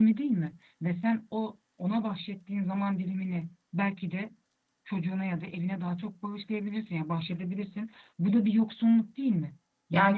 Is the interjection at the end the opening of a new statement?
Yes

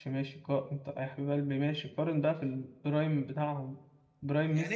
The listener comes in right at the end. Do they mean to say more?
Yes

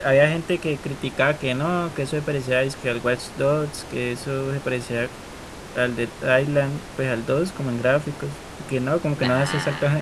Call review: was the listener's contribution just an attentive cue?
Yes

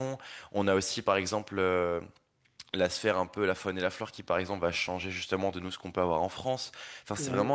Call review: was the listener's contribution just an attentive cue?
Yes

